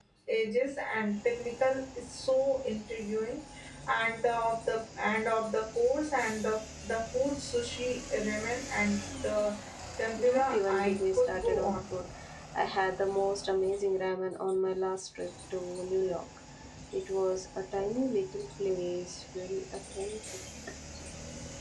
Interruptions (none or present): present